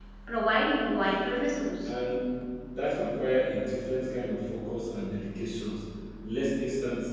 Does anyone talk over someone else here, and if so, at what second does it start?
none

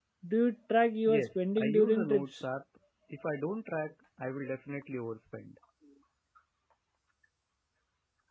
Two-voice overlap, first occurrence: 1.1 s

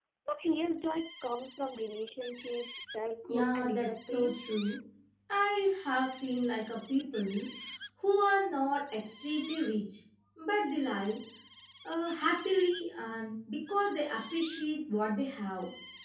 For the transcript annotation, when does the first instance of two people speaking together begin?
3.2 s

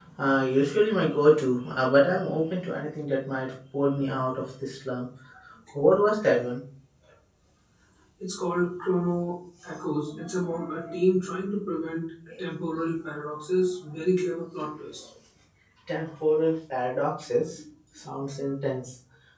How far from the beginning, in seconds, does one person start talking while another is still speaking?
none

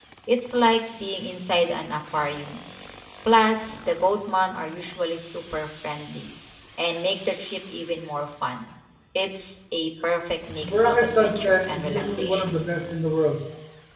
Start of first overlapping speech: 10.6 s

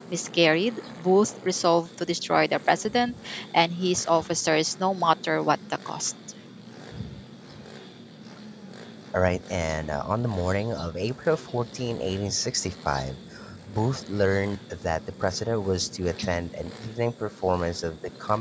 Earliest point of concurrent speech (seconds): none

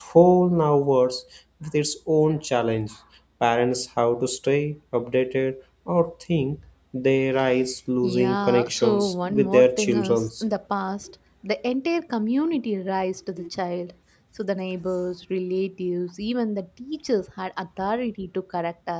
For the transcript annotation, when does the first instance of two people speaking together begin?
8.0 s

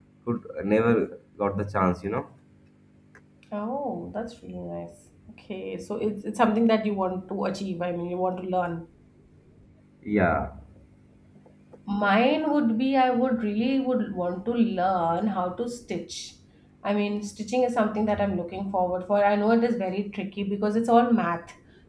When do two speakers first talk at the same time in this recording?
none

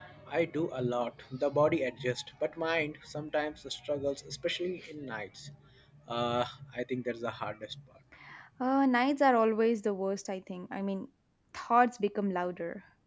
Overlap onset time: none

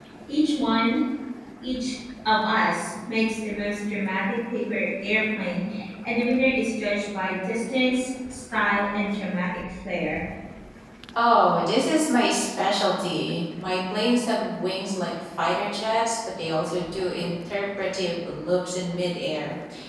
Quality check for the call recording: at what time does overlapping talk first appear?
none

